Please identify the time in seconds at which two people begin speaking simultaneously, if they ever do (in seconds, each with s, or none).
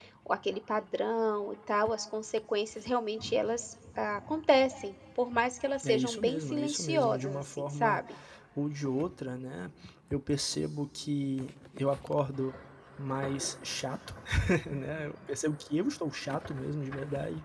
5.8 s